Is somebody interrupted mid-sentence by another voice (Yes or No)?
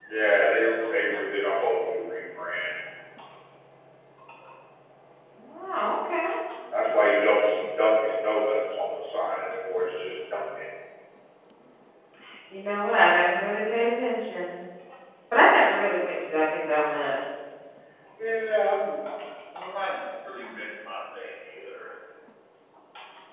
No